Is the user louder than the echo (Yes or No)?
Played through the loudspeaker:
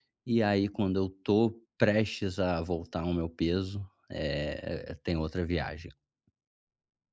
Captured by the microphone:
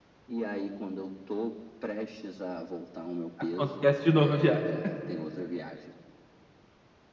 Yes